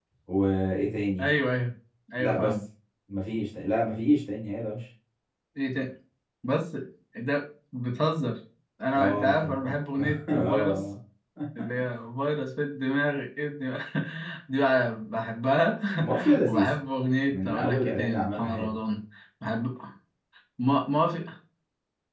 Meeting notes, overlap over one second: present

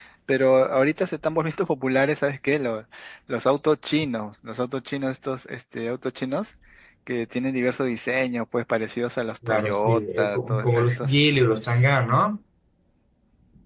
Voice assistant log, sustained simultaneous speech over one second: present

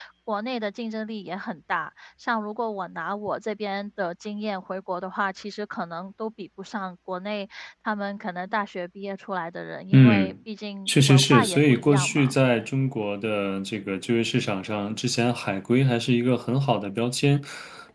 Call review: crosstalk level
present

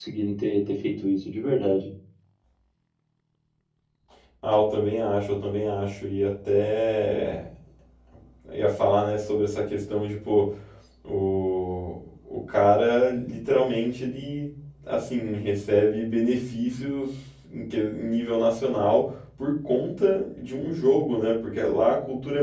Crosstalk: none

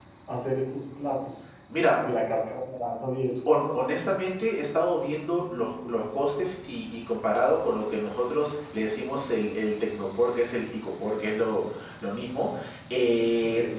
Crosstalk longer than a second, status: none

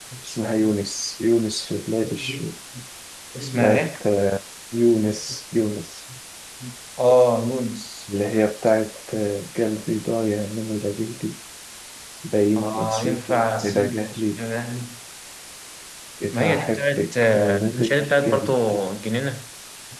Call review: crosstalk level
present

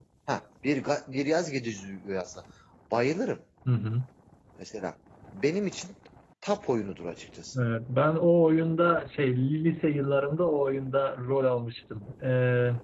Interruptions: none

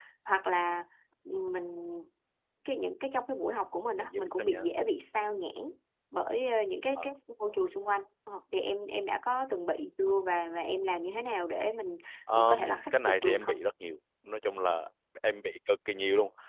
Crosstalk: present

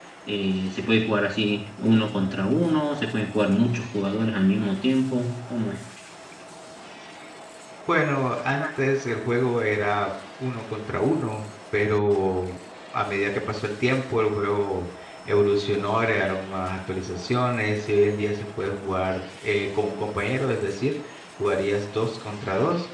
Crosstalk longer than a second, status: none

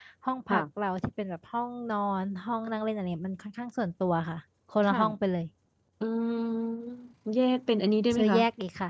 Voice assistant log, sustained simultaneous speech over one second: none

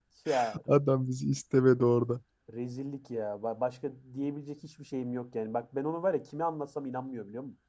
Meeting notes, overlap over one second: none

